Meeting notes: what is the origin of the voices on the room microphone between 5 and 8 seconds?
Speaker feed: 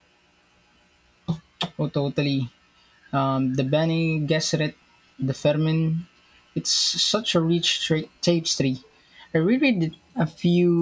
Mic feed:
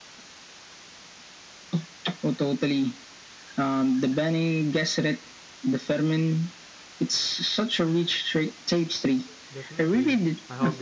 echo only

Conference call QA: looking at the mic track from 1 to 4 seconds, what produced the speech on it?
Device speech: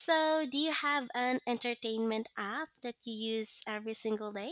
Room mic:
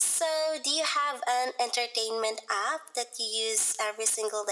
echo only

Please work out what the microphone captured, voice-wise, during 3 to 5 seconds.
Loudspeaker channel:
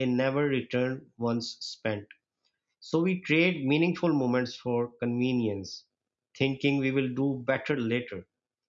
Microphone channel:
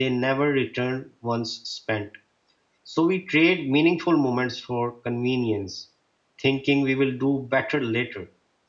echo only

